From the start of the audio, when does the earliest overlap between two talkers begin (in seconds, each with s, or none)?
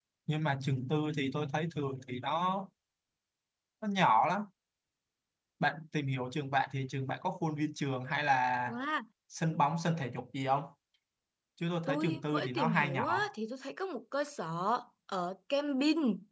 11.9 s